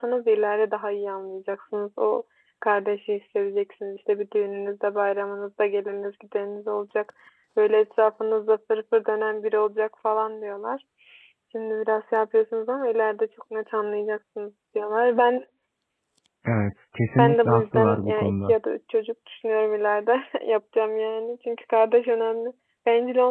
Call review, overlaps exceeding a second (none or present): present